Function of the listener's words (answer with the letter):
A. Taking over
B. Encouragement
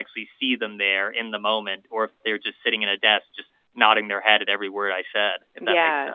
A